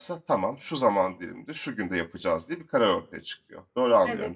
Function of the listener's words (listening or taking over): taking over